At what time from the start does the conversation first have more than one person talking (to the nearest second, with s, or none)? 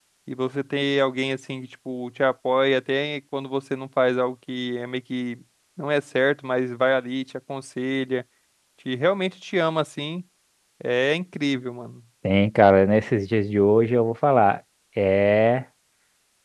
none